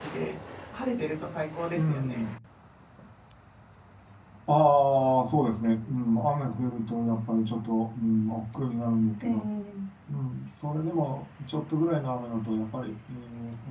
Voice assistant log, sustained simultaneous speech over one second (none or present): none